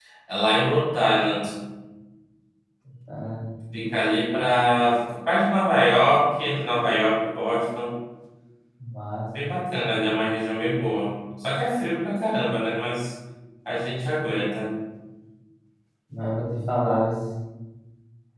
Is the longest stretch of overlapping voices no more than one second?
Yes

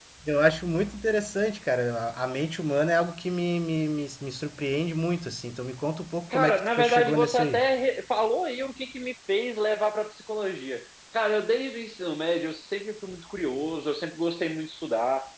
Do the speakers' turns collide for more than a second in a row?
Yes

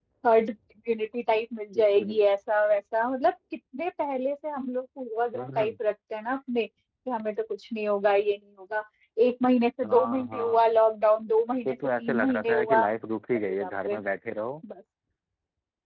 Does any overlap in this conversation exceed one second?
Yes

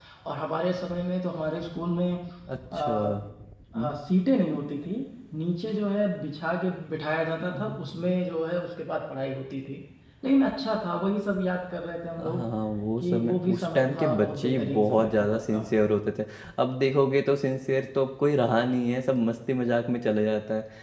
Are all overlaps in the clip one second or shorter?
No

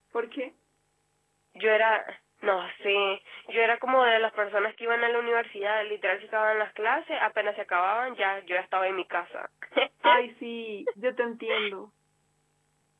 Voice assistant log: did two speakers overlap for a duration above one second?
No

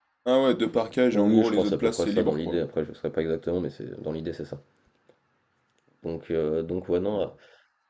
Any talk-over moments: Yes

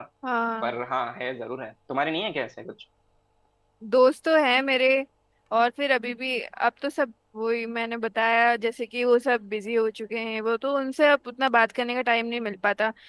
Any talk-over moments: No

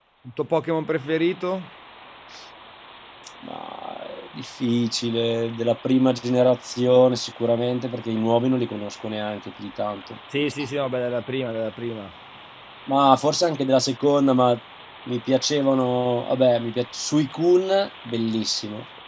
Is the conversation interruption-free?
Yes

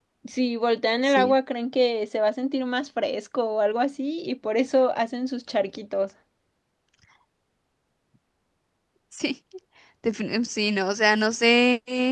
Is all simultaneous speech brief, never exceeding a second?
Yes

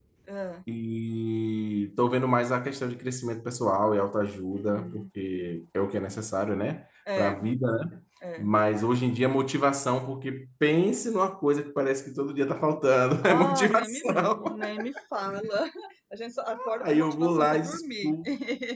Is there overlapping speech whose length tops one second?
Yes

